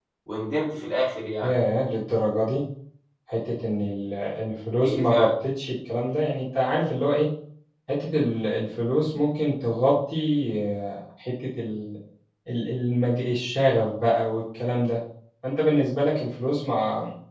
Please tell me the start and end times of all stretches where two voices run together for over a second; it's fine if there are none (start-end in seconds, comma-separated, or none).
none